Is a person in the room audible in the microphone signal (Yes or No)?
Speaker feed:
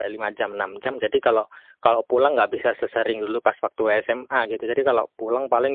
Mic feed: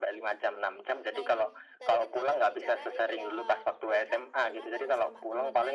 Yes